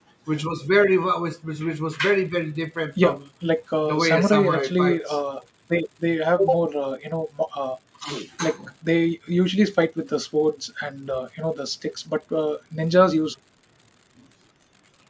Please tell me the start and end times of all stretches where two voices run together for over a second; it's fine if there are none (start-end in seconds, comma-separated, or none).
3.8-5.2